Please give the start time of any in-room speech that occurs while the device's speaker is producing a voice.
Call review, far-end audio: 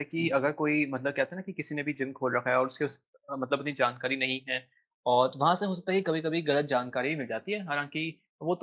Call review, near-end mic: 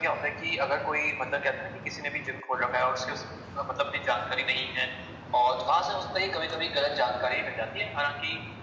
none

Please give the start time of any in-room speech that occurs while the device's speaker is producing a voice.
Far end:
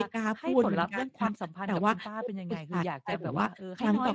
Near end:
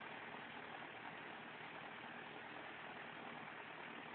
none

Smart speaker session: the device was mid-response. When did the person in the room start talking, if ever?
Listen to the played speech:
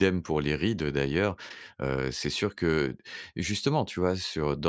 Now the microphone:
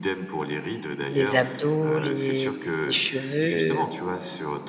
1 s

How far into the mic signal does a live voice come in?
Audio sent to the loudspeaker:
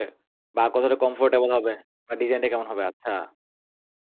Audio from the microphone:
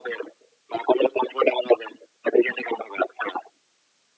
none

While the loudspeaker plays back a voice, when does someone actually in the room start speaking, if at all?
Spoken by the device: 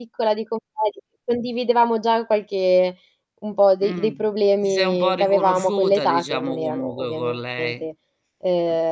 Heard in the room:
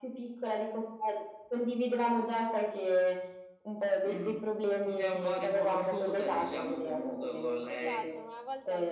8 s

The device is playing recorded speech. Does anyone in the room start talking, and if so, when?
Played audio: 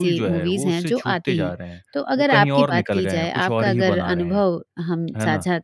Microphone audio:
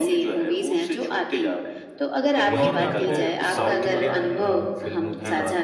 2 s

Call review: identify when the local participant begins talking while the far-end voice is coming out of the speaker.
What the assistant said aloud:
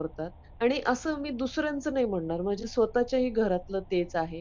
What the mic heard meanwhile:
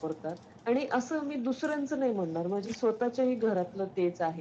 none

